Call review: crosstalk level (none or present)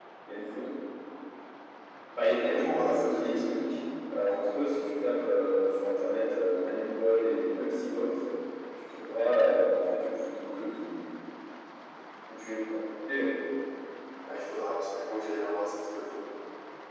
present